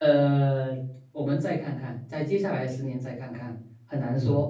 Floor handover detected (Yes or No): No